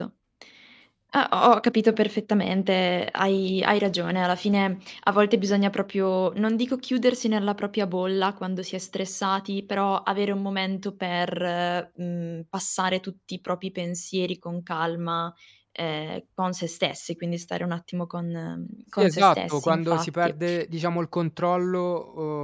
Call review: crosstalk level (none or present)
present